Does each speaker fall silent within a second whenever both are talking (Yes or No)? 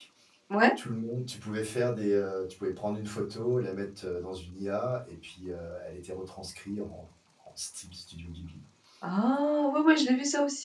Yes